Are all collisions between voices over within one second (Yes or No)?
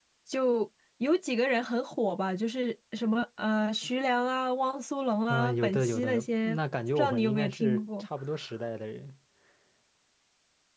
No